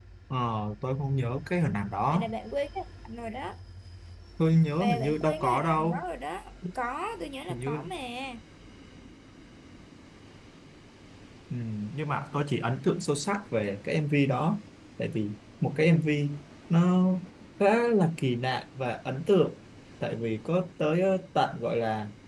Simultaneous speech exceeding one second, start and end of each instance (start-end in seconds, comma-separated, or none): 4.8-6.0